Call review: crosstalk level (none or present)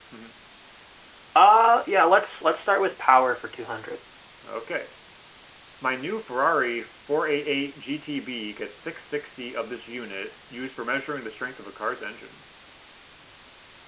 none